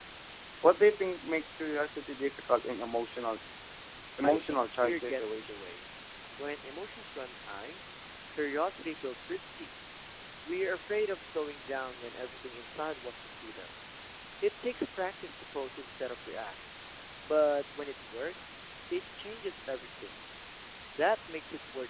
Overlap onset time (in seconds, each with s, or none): 4.2 s